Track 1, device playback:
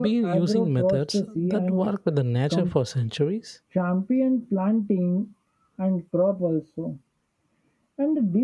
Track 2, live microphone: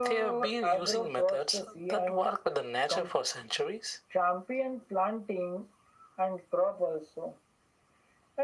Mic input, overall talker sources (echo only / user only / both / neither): echo only